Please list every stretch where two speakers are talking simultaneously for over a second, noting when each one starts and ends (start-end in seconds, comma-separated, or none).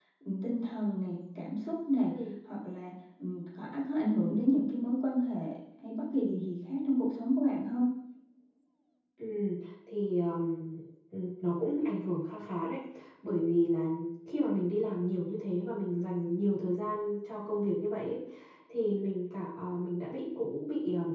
none